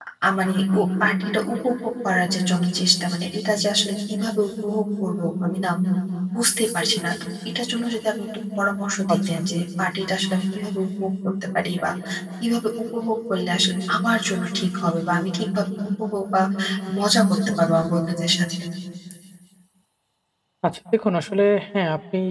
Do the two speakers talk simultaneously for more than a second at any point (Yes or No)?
No